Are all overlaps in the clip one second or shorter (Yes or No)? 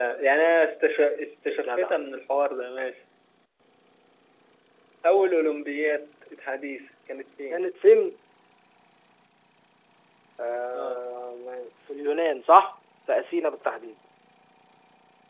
Yes